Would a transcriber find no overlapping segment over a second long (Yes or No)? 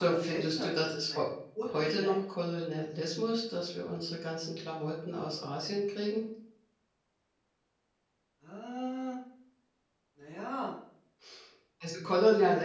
No